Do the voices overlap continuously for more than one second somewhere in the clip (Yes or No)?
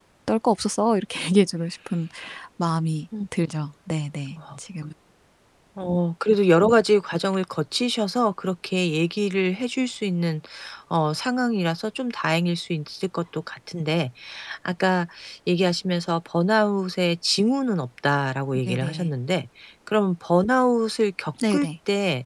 No